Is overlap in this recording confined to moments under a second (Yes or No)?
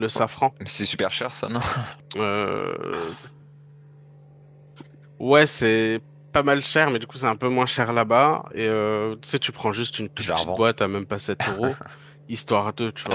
Yes